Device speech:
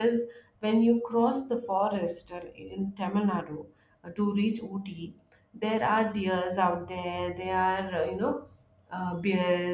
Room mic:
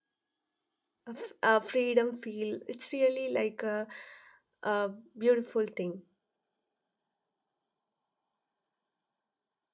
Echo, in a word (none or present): none